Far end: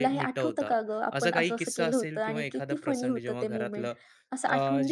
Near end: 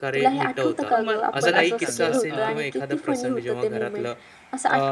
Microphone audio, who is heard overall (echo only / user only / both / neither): both